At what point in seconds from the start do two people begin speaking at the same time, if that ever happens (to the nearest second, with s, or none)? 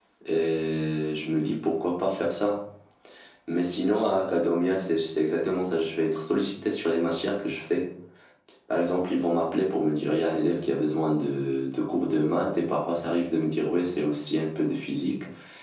none